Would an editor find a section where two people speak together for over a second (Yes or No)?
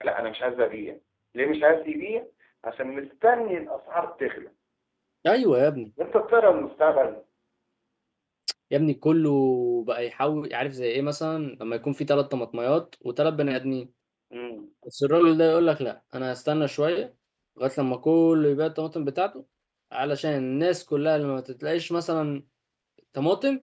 No